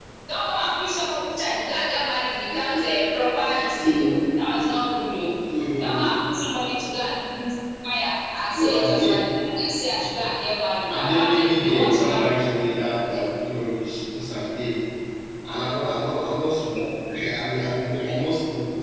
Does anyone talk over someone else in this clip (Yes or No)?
Yes